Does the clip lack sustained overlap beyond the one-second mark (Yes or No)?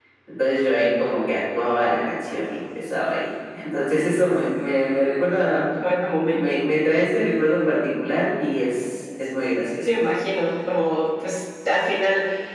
Yes